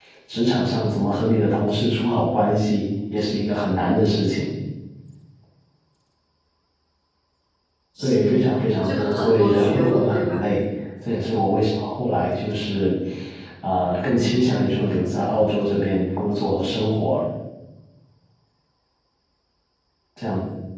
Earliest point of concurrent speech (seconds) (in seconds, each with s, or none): 8.0 s